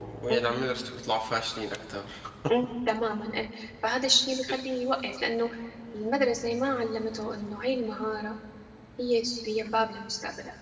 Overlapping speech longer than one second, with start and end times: none

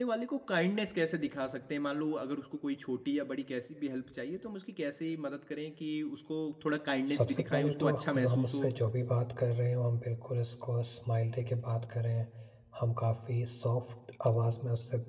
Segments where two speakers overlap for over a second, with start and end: 7.2-8.6

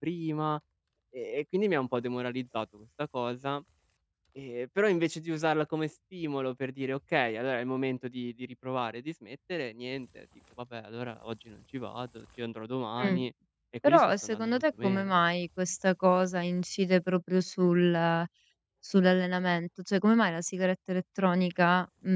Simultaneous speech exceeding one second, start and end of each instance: 13.9-15.1

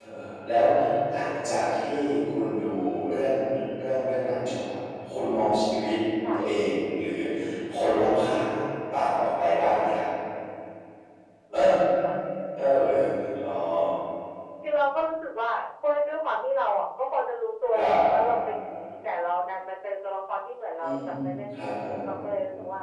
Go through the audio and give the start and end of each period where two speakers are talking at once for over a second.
none

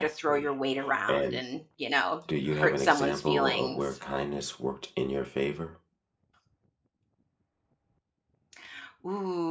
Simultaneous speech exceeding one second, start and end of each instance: 2.6-3.8

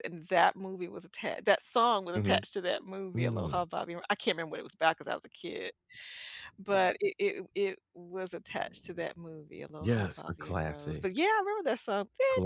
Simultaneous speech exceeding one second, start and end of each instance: 9.8-11.0

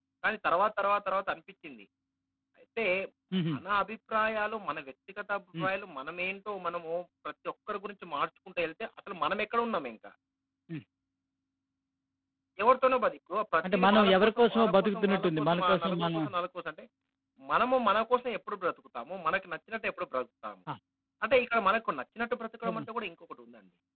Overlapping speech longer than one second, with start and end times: 13.7-16.2

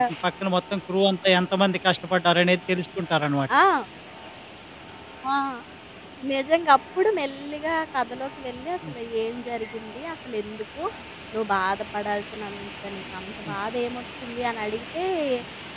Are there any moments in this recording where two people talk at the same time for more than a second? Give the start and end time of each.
none

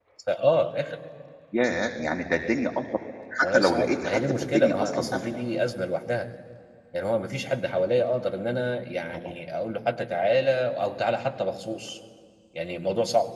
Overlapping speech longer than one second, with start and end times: 3.4-5.4

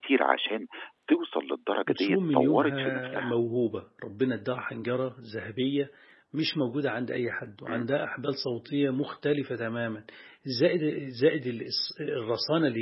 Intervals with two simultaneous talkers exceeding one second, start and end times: 1.9-3.3

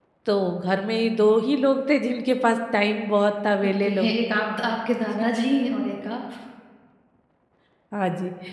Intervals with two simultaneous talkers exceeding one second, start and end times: none

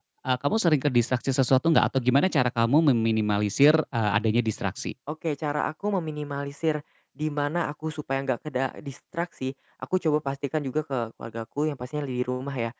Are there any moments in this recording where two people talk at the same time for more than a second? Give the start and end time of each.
none

